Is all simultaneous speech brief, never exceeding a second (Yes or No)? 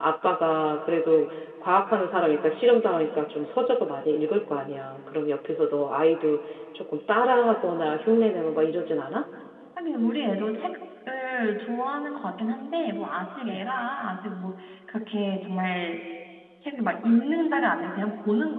Yes